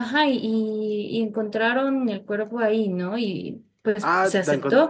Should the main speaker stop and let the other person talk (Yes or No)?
Yes